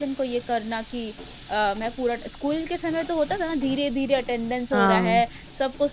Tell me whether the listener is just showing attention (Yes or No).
Yes